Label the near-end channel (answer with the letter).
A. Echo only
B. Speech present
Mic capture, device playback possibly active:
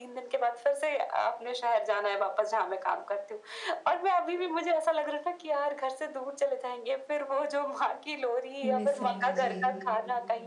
B